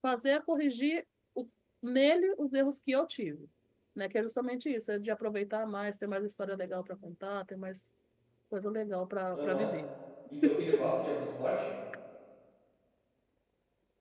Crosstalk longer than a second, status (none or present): none